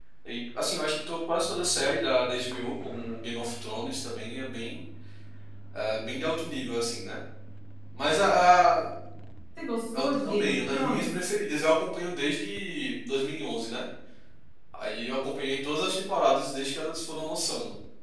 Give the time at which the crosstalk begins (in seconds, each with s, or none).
10.0 s